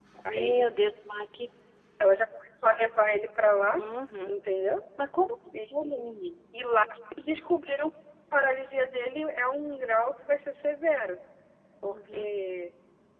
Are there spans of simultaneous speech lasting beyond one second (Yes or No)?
No